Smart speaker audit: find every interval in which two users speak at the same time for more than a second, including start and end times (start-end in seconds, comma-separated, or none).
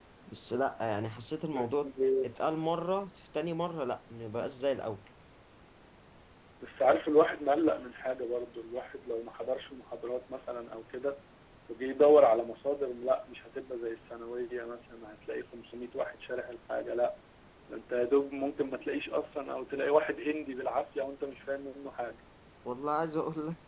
none